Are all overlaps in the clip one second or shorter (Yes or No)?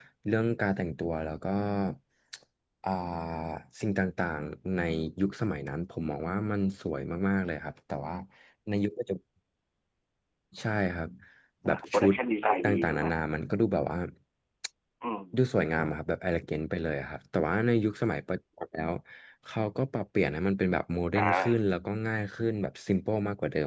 No